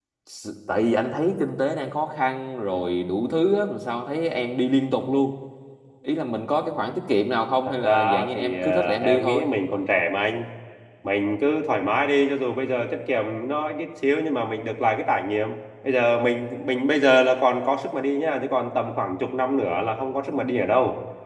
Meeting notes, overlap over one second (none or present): present